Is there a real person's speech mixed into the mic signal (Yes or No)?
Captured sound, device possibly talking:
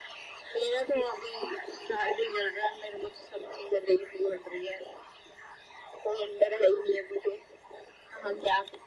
No